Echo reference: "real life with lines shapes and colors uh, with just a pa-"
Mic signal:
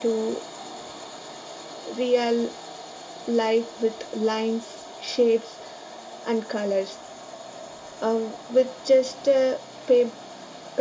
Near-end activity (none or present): none